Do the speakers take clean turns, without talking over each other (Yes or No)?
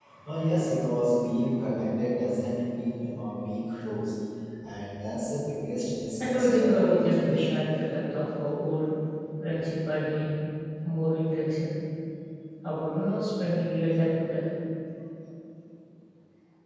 No